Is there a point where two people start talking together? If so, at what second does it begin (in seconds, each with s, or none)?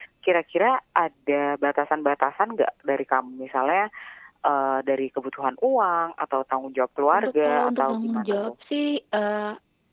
7.1 s